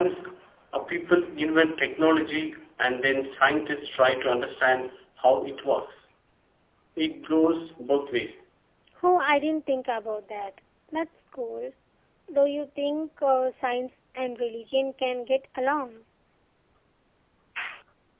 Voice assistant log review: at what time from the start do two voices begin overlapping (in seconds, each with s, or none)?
none